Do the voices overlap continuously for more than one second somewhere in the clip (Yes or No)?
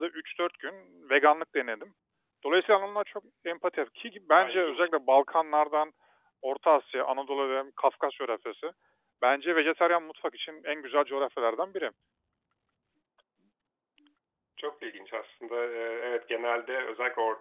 No